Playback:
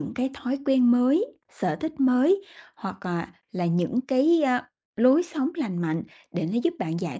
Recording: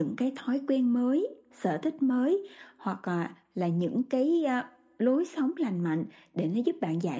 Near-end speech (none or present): none